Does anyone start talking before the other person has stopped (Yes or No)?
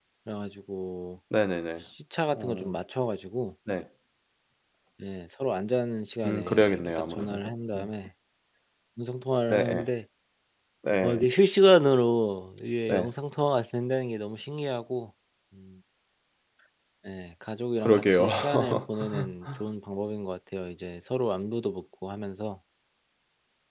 Yes